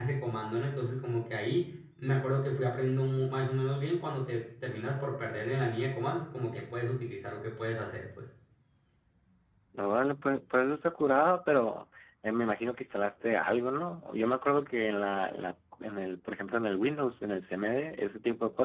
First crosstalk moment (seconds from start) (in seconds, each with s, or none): none